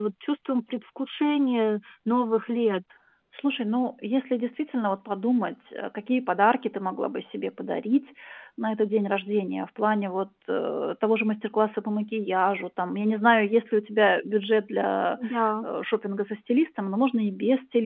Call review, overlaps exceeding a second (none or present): none